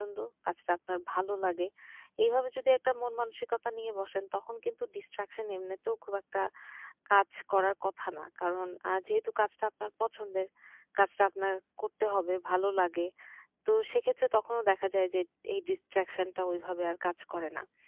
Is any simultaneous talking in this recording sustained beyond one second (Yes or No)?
No